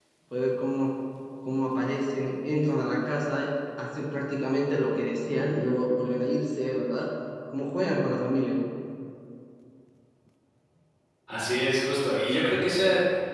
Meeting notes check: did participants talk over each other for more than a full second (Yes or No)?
No